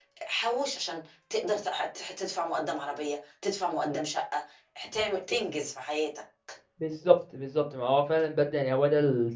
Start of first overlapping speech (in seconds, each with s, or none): none